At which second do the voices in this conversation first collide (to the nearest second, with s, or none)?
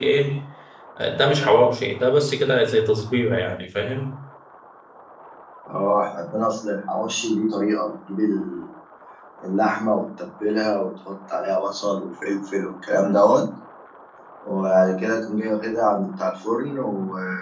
none